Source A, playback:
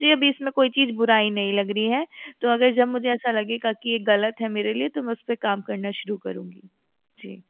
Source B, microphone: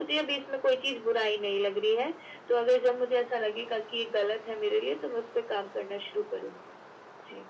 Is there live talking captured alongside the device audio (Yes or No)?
No